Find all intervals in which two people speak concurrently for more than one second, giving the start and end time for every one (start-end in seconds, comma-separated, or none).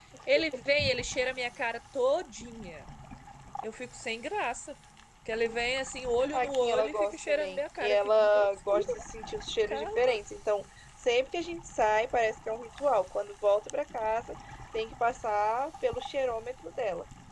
6.3-8.9